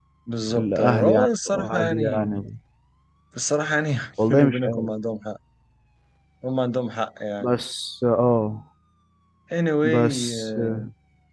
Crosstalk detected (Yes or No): Yes